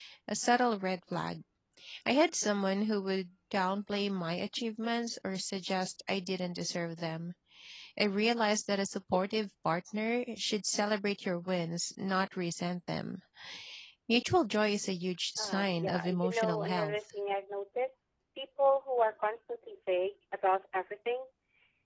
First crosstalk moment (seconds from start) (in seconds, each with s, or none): 15.4 s